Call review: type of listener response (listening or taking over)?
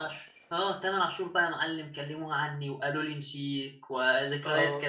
listening